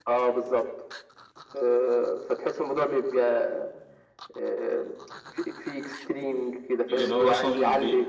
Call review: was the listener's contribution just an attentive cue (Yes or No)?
No